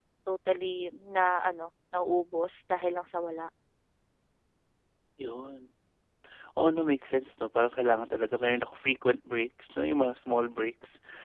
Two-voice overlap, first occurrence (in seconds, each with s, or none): none